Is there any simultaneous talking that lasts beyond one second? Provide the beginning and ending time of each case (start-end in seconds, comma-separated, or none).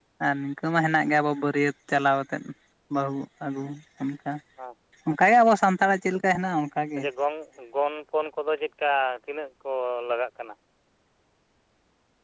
none